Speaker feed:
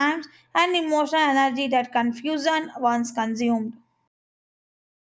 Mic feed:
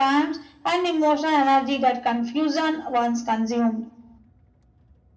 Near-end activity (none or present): none